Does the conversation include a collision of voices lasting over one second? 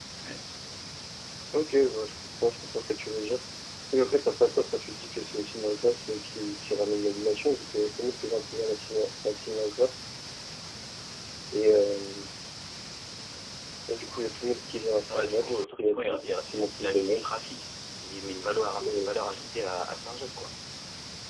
Yes, from 15.1 s

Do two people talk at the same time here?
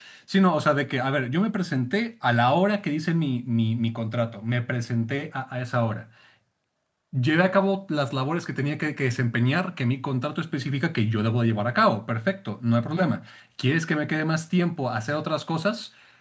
No

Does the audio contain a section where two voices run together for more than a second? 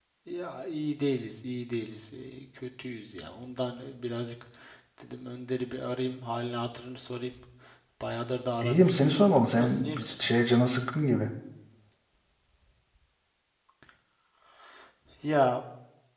Yes, from 8.6 s

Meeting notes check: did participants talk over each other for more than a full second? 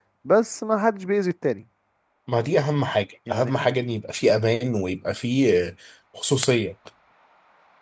No

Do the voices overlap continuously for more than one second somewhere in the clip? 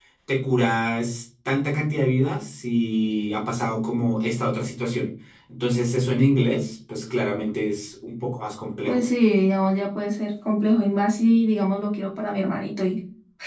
No

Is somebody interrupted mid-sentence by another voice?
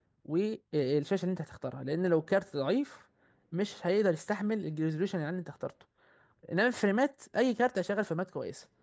No

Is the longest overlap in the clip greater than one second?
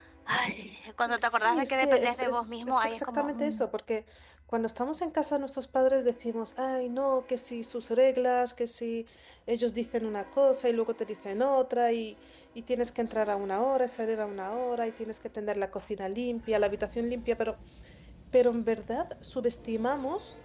Yes, from 1.2 s

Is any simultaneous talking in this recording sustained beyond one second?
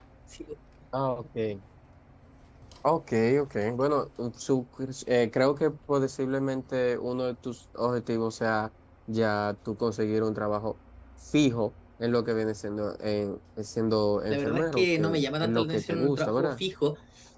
Yes, from 14.3 s

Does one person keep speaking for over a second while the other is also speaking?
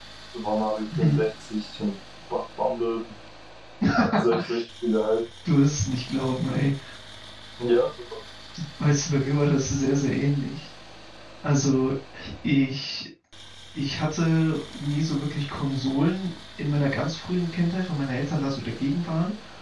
No

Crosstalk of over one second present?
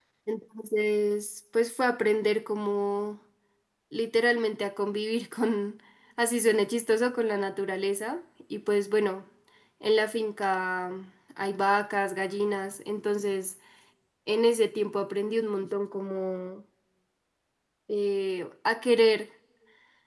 No

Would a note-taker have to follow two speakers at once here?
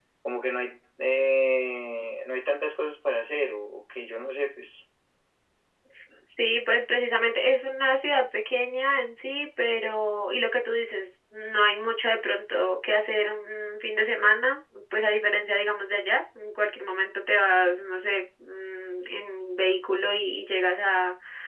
No

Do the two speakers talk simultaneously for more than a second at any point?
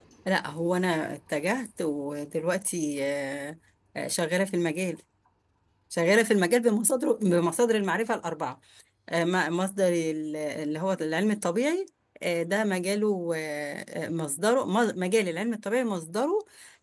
No

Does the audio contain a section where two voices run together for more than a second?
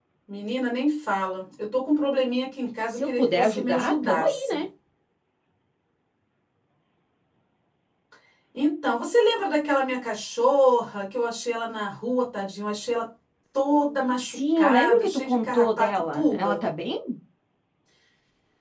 Yes, from 2.9 s

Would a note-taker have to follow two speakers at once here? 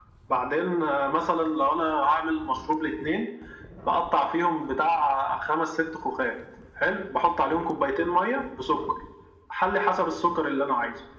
No

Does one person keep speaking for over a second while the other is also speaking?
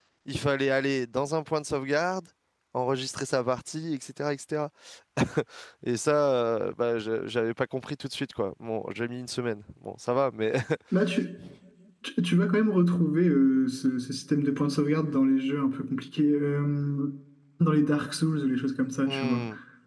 No

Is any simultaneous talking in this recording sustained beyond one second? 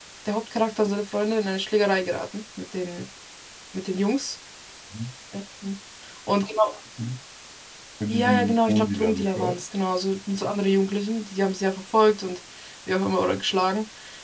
Yes, from 8.1 s

